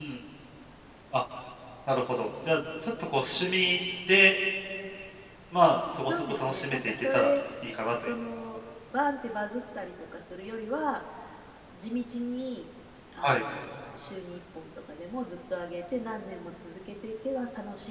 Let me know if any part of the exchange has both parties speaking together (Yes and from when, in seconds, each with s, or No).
Yes, from 6.0 s